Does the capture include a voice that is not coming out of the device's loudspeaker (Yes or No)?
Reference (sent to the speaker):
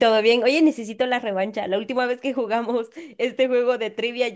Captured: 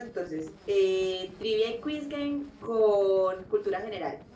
Yes